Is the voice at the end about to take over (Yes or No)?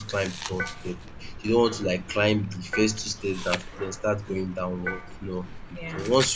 No